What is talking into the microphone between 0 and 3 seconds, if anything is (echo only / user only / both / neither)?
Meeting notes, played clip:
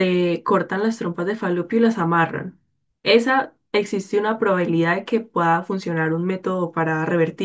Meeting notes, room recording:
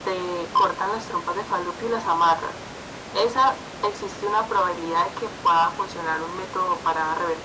echo only